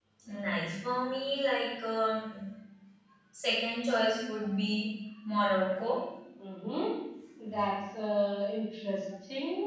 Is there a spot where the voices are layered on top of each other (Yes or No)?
No